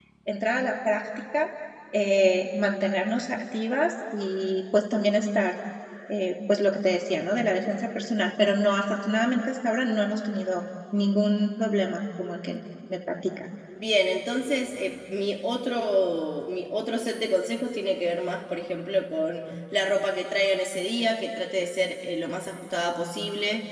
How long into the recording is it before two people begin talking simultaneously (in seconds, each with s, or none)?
none